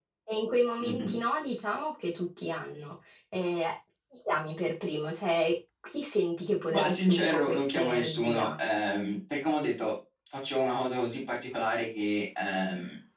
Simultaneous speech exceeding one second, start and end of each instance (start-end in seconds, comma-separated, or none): 6.7-8.6